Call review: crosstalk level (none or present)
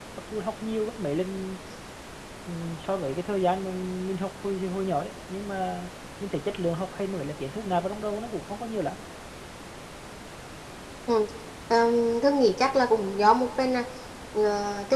none